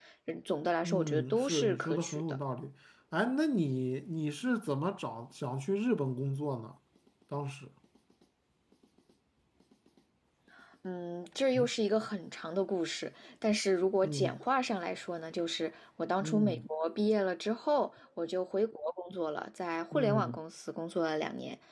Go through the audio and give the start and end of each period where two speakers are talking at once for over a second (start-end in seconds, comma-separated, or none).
0.8-2.4